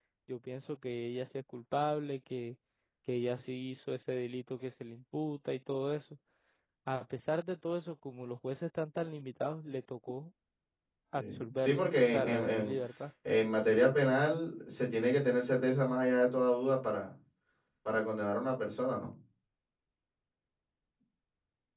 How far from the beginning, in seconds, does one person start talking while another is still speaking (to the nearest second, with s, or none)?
11 s